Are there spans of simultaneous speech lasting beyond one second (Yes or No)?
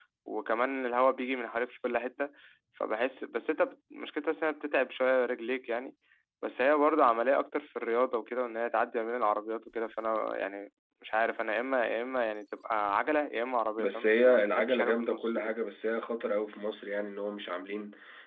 Yes